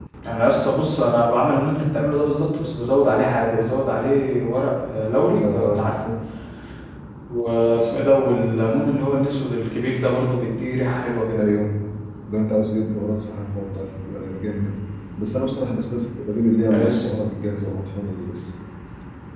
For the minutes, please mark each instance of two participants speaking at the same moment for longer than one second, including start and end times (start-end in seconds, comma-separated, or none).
none